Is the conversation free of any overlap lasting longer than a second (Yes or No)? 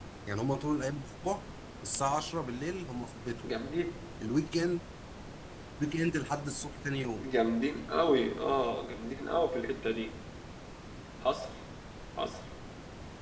Yes